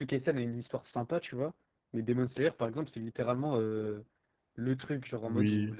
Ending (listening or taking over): listening